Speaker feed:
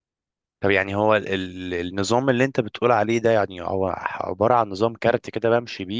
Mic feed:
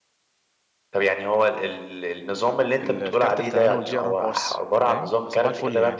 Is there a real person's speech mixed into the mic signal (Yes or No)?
Yes